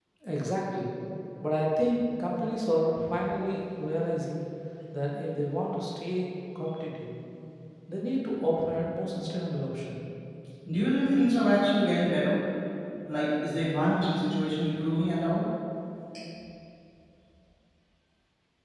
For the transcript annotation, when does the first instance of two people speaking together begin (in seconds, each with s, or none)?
none